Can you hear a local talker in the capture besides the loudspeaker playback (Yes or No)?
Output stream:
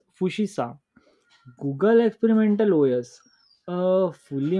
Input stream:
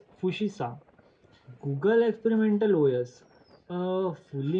No